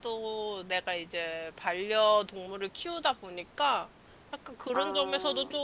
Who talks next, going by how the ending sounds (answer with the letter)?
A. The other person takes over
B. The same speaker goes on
B